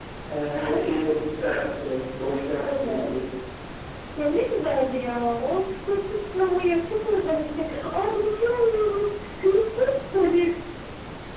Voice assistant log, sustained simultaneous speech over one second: none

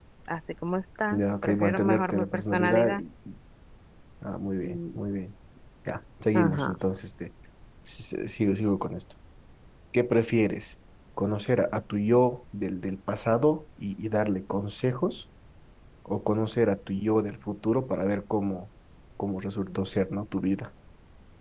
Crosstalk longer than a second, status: present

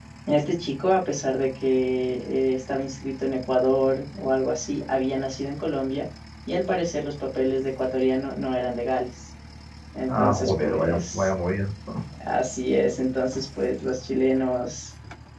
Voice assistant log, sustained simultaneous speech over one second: present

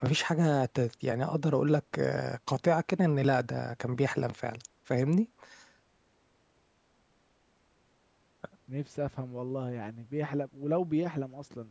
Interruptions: none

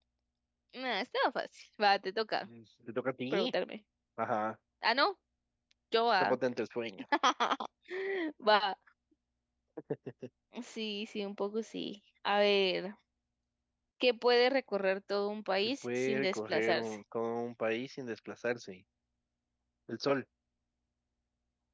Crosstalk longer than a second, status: present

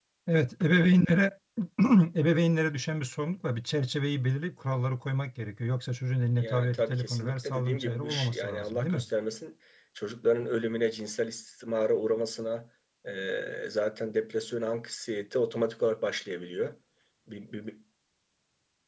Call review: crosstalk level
present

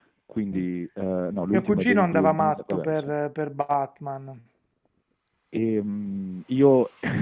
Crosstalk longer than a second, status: present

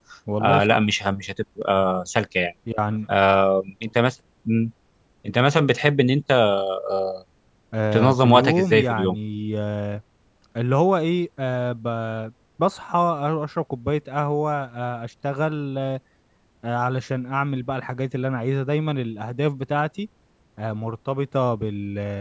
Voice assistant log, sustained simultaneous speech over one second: present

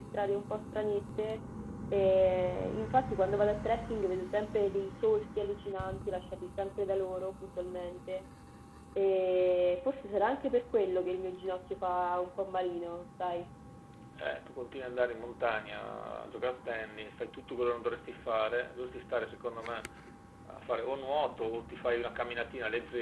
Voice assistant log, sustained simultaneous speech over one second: none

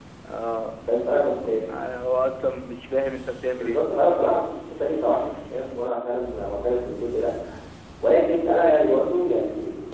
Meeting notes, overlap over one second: none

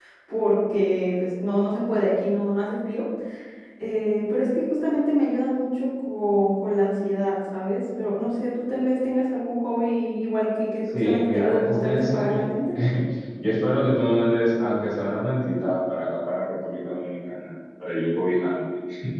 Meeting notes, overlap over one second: present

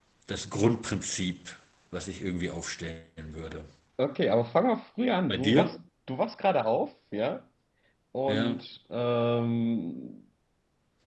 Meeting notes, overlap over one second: none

